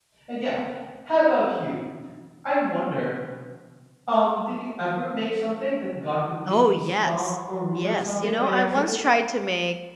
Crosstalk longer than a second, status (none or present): present